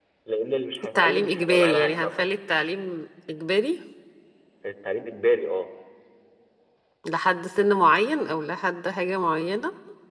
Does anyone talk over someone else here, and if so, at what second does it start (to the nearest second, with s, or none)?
1 s